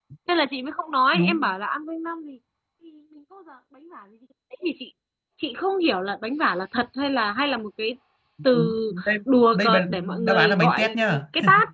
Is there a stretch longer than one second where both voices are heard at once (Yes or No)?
Yes